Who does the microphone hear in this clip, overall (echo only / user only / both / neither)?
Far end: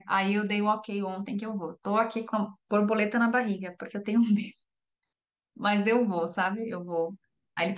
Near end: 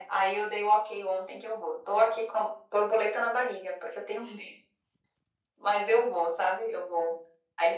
echo only